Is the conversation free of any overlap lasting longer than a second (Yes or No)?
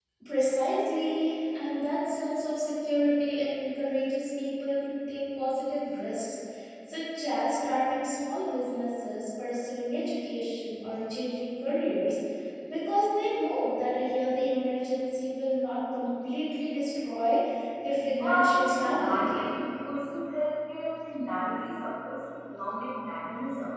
No